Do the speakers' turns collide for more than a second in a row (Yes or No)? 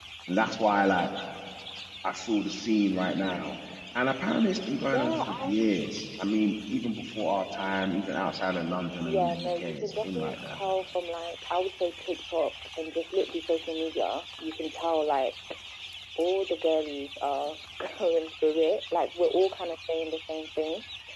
Yes